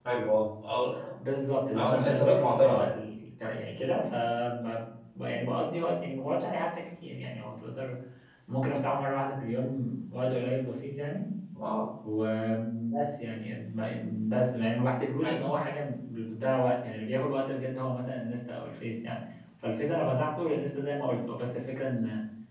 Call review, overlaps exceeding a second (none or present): present